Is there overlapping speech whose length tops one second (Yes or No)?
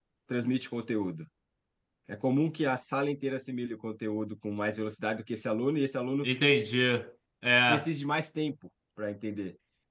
No